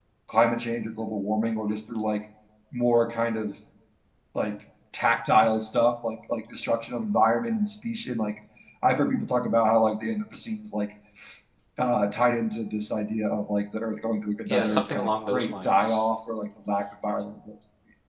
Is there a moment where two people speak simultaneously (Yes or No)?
Yes